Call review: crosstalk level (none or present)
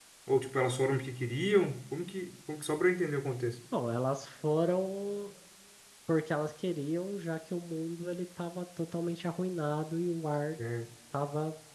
none